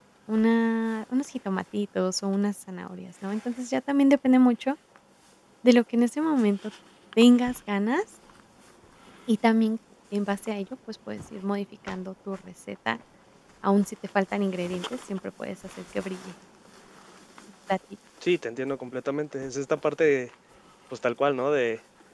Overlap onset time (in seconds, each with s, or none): none